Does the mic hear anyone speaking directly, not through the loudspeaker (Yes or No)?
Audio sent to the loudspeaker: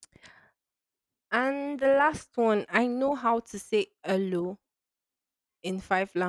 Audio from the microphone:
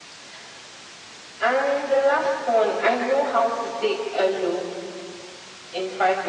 No